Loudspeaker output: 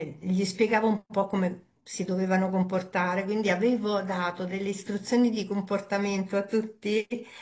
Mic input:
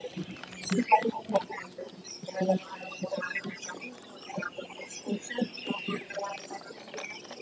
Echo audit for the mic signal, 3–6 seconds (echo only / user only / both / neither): echo only